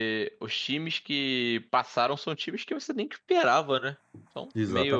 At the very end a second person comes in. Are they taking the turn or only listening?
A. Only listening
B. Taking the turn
B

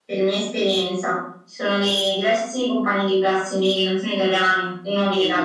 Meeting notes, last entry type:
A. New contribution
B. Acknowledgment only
A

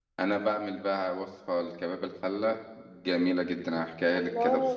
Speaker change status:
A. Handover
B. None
A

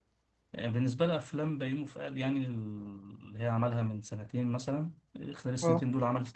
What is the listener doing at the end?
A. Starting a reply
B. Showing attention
B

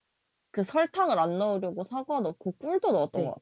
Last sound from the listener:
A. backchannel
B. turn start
B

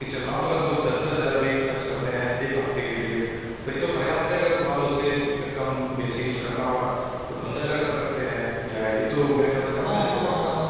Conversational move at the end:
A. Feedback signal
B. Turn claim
B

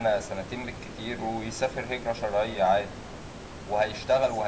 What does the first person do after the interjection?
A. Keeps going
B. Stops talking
A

